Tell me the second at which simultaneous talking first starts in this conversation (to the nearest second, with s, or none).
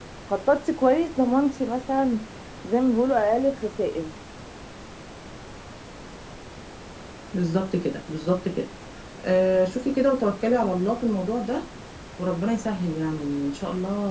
none